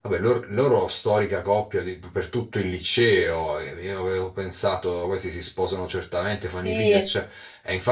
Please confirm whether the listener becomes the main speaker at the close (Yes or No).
No